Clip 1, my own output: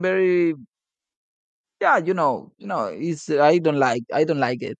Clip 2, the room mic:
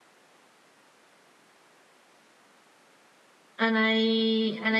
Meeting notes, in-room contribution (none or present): present